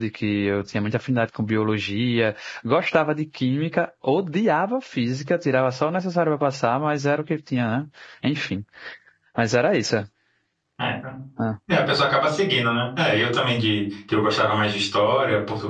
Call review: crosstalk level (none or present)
none